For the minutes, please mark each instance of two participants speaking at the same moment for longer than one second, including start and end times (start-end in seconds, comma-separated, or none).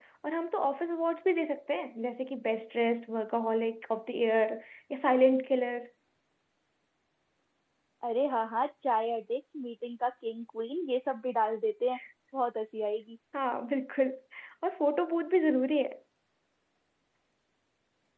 none